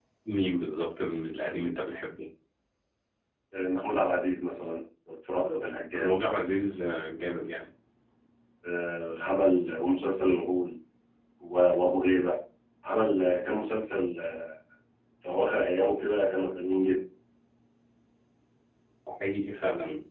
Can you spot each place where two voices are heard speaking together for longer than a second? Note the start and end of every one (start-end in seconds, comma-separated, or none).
none